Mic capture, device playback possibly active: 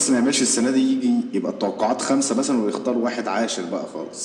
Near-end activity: none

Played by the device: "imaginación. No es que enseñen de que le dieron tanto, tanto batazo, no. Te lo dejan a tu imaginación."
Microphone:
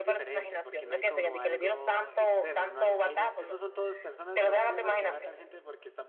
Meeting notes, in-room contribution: present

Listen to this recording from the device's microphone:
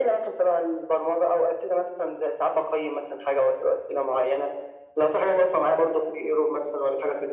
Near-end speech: none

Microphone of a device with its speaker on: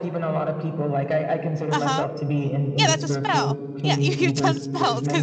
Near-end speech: present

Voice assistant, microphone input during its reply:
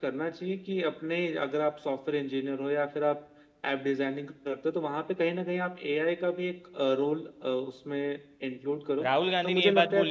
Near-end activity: present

